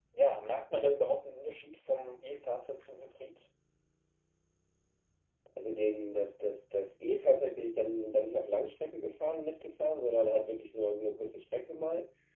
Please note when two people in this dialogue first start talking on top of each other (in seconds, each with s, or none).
none